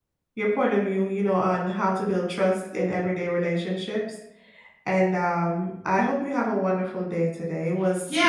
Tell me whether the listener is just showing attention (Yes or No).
No